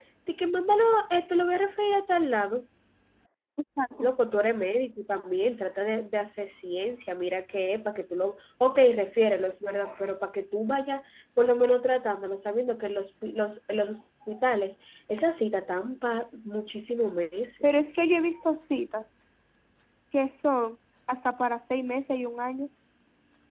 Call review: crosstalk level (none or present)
none